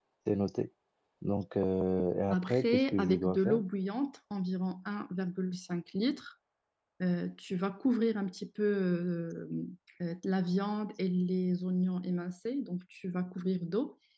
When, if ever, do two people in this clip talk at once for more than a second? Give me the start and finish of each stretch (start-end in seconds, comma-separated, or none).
2.3-3.6